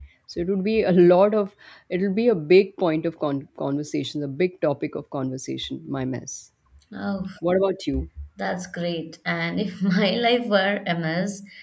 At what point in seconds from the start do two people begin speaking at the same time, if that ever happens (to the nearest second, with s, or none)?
none